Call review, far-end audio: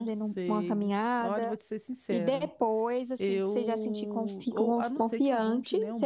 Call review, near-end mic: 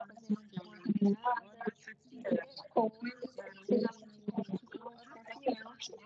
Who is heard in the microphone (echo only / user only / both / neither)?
echo only